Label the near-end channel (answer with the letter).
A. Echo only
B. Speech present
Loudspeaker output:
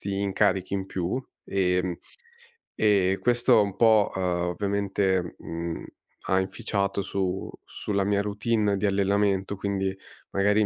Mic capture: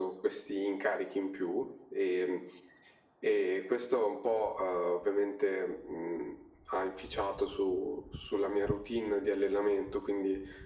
A